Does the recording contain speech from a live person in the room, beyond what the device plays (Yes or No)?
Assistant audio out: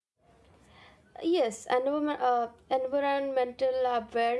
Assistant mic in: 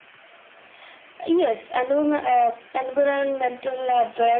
No